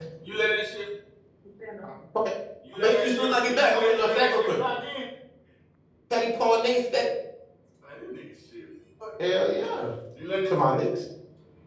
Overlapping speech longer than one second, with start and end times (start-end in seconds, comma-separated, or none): 2.8-4.6